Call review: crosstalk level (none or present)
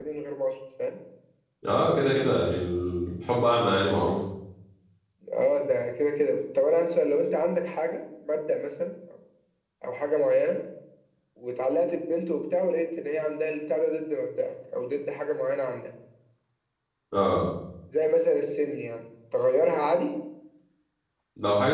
none